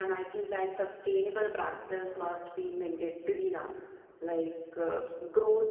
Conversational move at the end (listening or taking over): listening